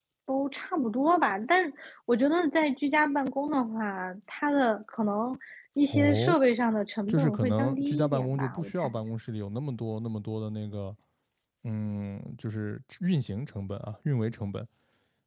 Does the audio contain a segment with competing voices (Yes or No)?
Yes